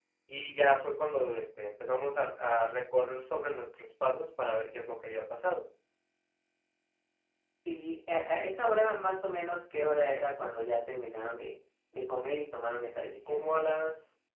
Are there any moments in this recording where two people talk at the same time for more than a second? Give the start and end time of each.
none

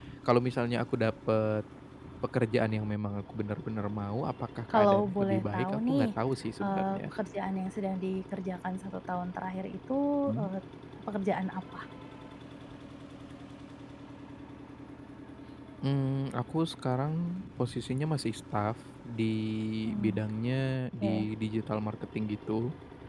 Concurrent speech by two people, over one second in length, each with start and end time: 4.7-6.0

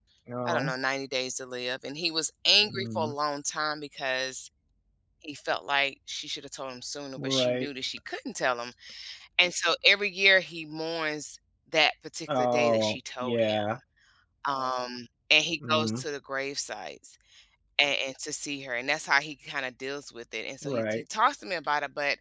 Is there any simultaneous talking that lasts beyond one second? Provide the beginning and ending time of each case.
12.4-13.7

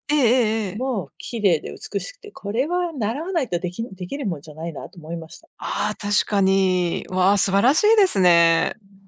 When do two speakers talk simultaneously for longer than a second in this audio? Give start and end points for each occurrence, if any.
none

